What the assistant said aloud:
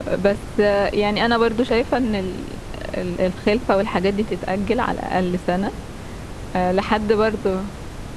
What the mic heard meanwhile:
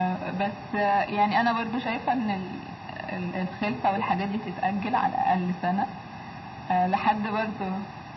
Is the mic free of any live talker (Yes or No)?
No